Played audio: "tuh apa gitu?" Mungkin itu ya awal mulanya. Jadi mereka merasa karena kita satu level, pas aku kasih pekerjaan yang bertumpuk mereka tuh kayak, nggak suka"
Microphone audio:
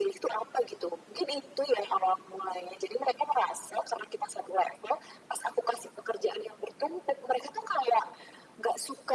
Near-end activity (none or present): none